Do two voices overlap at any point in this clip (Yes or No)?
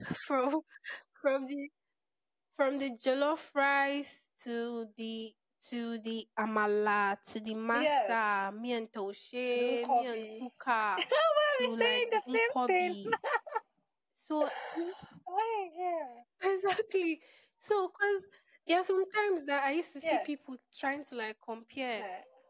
Yes